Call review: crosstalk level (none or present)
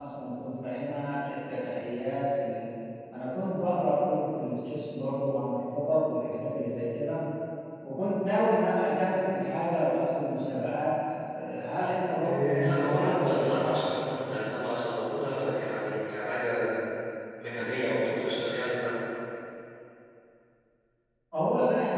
present